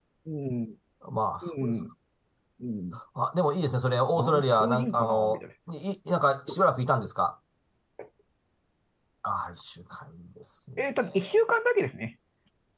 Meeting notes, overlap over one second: present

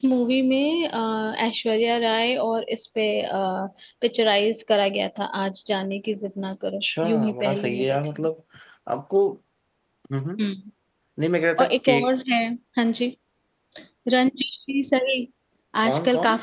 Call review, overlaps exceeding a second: present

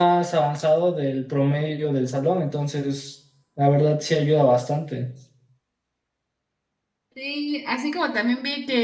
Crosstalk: none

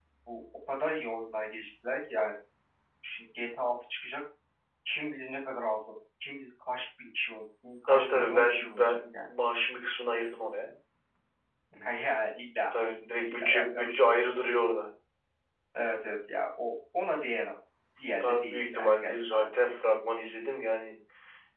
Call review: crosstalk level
present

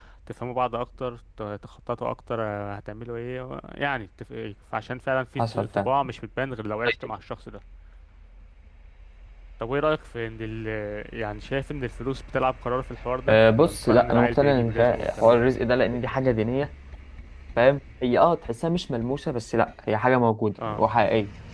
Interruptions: present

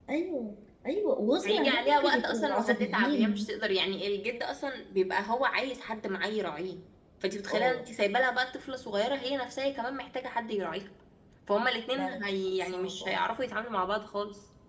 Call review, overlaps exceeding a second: present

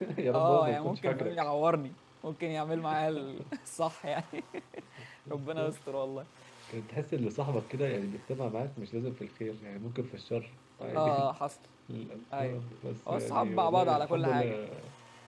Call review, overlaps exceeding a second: present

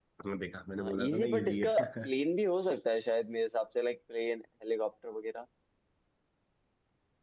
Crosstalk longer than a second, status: present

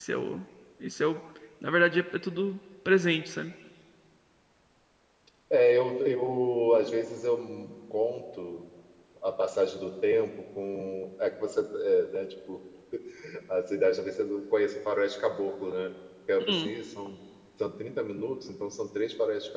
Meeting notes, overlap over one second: none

